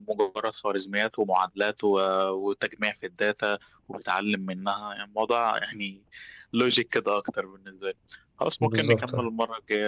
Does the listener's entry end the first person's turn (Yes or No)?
No